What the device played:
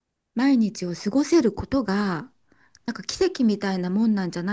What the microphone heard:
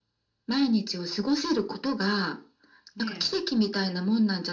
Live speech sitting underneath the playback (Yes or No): Yes